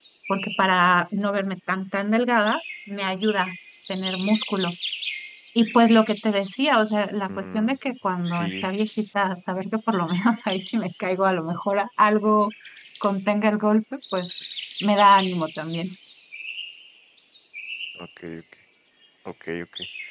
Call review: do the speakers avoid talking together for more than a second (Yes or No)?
Yes